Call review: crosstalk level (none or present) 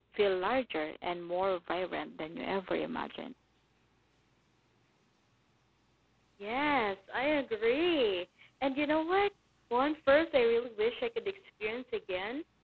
none